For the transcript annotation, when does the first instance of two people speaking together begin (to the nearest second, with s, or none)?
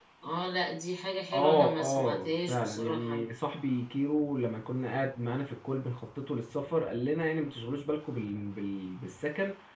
1 s